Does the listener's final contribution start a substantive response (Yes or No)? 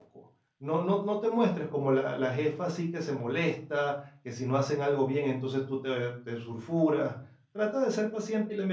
No